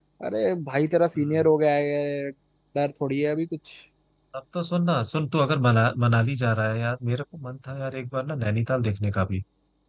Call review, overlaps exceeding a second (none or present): none